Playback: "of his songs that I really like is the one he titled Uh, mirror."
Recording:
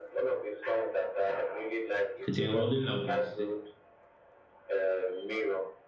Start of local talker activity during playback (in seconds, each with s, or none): 2.3 s